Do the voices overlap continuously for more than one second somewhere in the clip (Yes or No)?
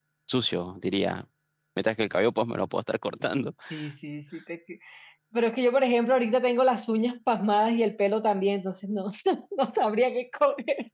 No